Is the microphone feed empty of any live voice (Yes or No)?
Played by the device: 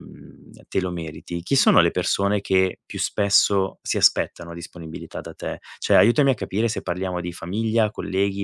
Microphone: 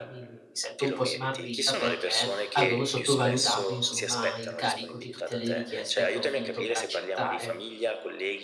No